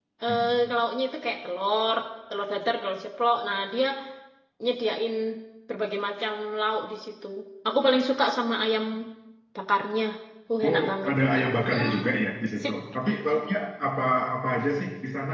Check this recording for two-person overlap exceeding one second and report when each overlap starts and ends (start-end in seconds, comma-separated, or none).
10.7-12.0